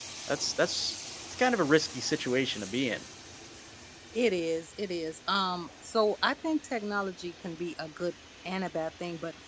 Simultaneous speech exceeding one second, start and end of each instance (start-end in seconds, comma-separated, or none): none